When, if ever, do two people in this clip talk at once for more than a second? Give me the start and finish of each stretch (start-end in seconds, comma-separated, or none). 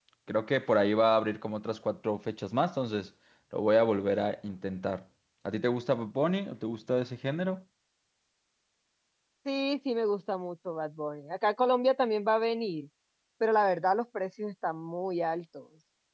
none